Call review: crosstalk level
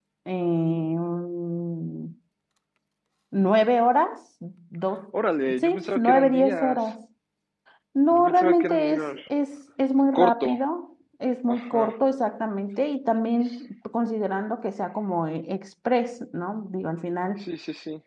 present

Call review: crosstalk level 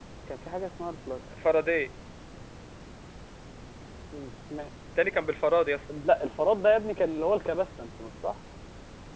none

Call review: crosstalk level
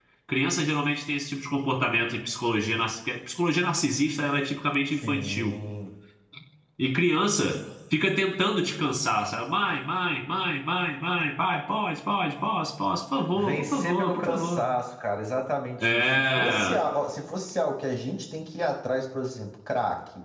present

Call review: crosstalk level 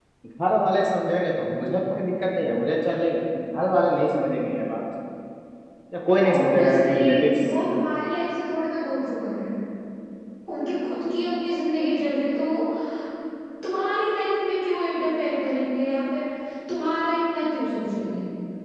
present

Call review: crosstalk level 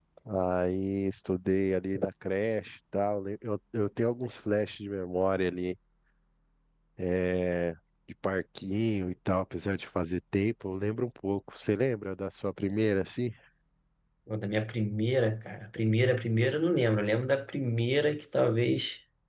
none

